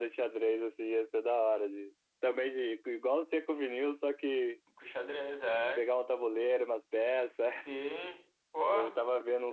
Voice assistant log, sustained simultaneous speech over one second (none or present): none